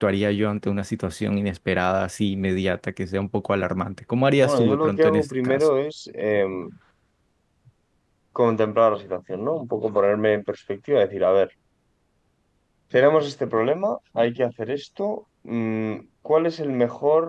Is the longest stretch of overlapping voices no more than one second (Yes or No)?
No